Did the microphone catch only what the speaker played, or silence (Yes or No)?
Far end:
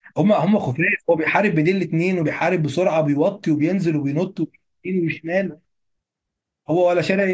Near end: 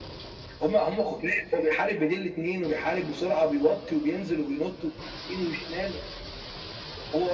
Yes